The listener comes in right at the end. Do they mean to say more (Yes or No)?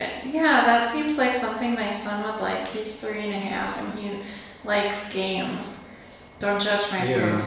No